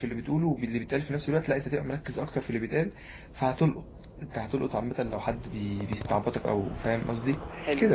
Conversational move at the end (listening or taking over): taking over